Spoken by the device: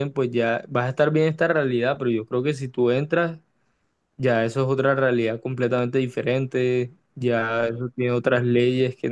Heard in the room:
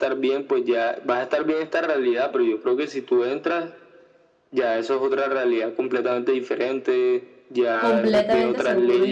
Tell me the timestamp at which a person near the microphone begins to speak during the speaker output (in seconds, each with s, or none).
7.8 s